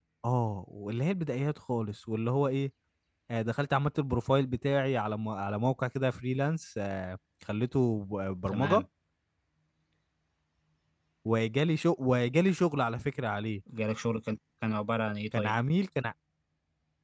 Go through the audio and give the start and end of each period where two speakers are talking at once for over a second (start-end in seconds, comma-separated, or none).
none